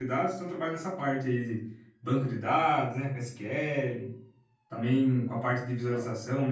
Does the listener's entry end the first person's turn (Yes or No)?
No